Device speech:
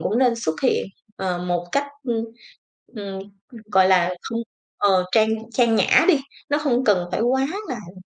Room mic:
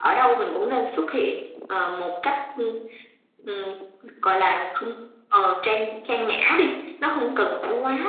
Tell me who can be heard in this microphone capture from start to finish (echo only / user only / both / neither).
echo only